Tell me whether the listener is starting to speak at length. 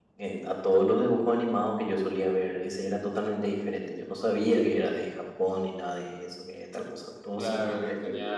Yes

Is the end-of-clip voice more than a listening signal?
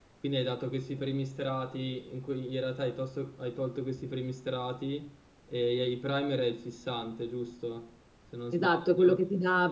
Yes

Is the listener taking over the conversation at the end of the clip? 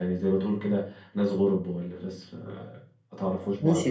Yes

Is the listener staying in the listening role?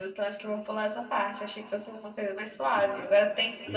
Yes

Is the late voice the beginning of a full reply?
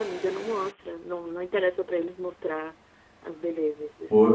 Yes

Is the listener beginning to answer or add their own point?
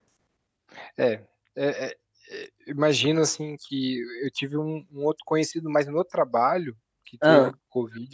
No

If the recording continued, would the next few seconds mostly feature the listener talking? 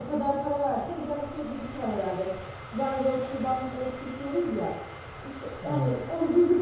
No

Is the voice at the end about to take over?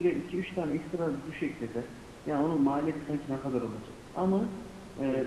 No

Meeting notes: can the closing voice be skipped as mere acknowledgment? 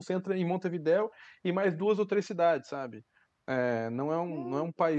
Yes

